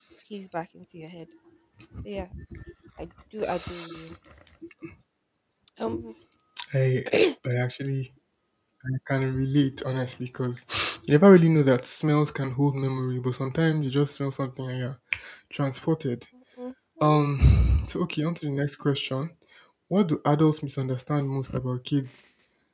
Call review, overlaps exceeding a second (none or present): none